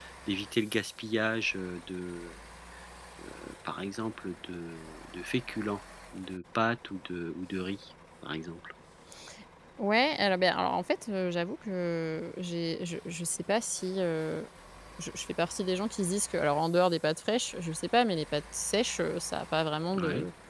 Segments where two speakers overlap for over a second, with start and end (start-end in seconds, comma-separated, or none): none